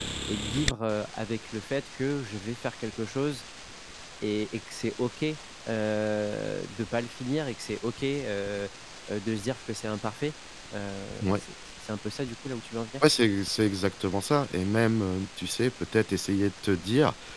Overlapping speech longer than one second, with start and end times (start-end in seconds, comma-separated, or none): none